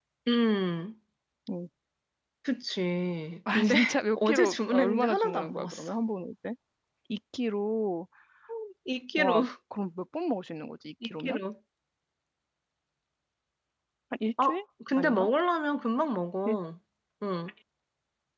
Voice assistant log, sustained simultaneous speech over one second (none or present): present